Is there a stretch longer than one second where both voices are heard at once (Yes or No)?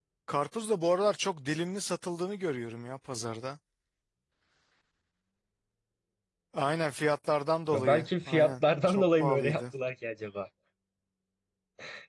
Yes